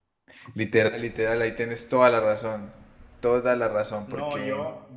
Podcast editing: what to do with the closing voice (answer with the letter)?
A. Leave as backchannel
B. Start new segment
B